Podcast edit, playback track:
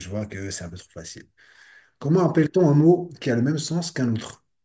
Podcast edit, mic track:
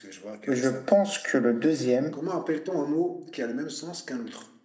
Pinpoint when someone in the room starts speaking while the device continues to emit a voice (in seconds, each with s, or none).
0.5 s